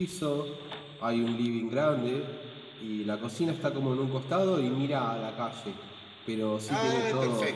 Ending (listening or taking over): taking over